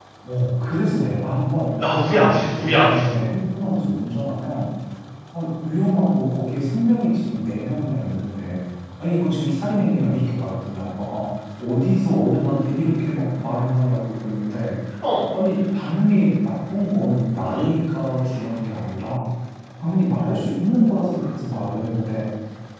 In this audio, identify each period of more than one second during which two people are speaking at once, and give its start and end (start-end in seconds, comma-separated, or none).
1.9-3.2